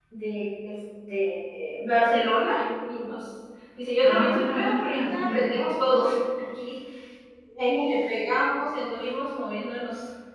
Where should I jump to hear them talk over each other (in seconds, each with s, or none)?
4.0 s